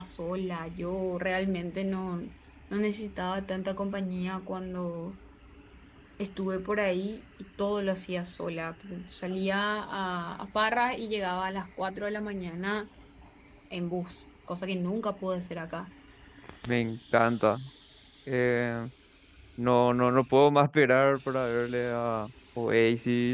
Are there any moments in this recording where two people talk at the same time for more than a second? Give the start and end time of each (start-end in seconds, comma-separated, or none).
none